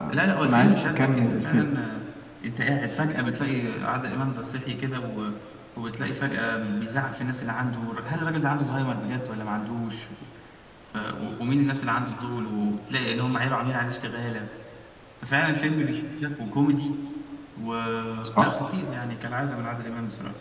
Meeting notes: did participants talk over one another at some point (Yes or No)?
Yes